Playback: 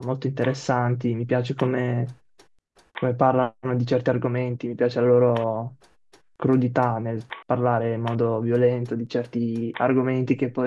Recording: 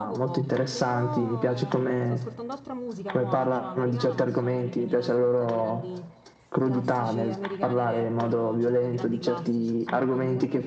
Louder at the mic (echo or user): echo